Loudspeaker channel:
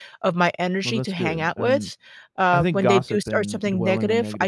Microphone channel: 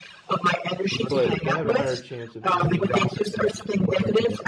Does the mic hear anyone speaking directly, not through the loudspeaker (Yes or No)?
Yes